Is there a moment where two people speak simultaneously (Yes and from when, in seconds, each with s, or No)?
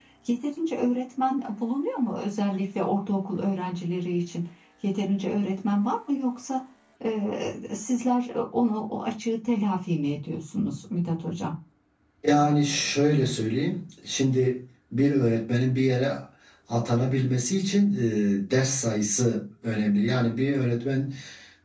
No